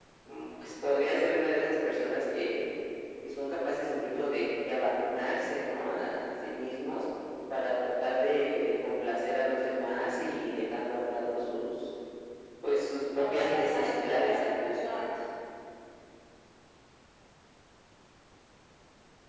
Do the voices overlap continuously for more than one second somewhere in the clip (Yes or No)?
Yes